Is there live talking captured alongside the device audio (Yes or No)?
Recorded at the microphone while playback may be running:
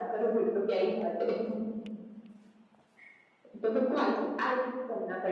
No